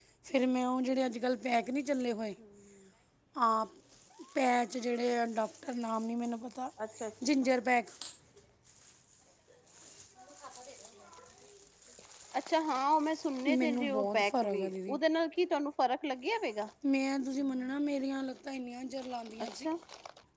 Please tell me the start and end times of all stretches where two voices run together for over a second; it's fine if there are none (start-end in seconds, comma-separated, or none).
13.6-15.0